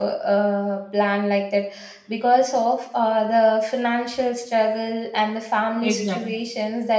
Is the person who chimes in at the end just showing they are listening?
Yes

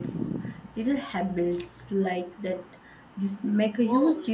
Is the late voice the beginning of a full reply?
Yes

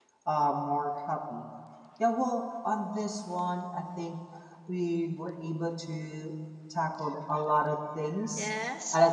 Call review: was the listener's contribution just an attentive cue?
Yes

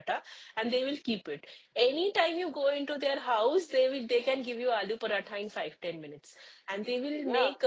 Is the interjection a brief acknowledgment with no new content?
Yes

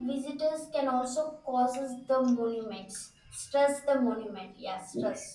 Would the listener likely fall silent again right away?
No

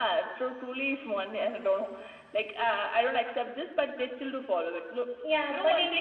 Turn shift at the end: Yes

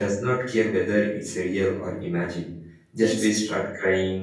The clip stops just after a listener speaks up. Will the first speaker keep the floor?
Yes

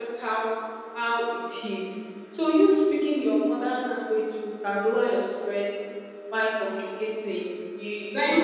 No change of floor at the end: Yes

